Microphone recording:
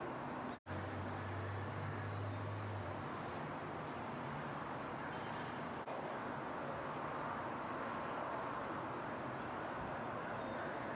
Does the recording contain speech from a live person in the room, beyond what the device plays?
No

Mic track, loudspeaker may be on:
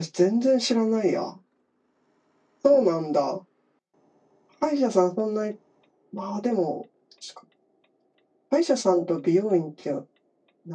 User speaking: No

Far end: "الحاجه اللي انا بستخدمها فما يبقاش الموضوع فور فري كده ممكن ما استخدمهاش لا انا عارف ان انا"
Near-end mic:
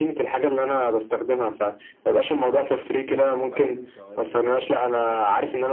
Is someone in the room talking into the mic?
Yes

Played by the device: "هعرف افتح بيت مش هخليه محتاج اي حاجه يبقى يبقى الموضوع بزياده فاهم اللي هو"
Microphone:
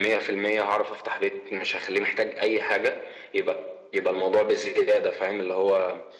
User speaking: No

